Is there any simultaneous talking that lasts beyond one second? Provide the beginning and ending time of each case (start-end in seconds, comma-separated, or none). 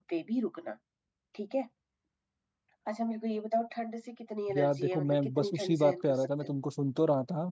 4.5-6.5